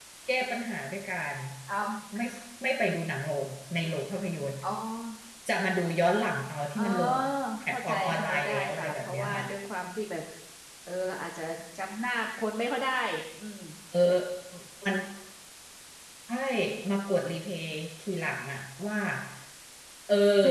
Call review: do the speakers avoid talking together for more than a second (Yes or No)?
No